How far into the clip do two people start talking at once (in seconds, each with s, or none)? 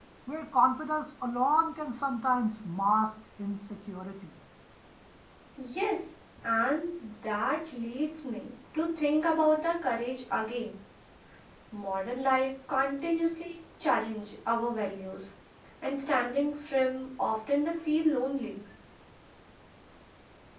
none